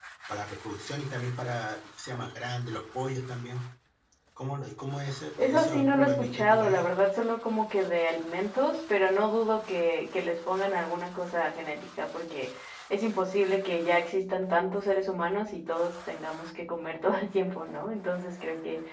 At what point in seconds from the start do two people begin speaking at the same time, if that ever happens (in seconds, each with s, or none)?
5.4 s